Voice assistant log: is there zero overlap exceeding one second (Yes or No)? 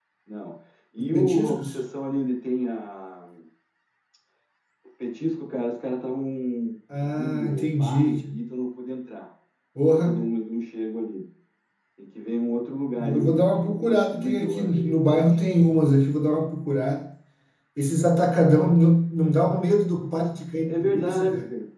No